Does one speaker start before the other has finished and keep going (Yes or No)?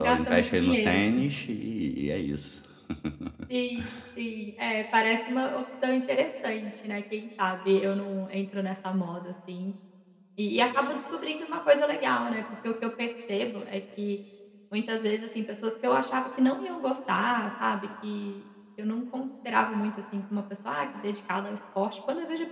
Yes